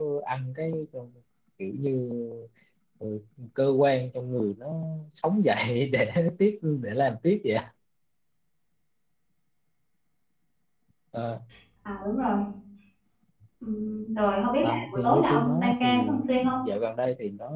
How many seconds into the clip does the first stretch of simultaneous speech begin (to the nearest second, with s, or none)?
15 s